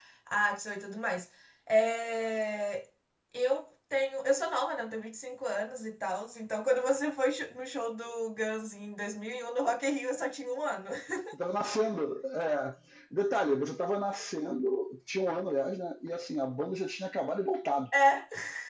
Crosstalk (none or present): none